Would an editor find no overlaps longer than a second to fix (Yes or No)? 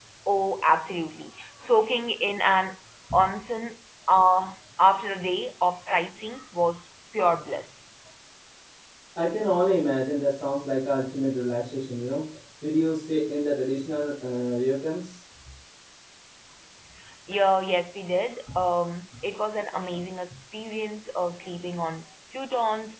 Yes